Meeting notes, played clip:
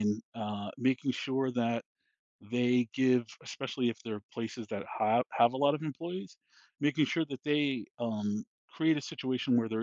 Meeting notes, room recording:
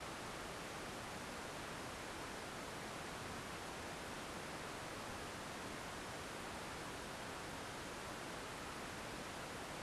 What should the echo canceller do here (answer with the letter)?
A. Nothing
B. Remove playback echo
A